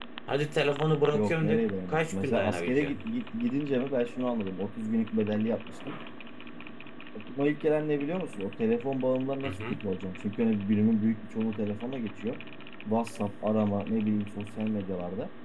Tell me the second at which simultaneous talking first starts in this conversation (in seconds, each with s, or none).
1.1 s